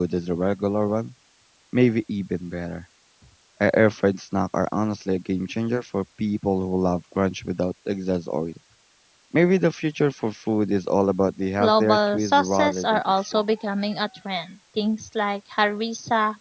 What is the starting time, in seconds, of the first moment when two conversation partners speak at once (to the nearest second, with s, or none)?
12 s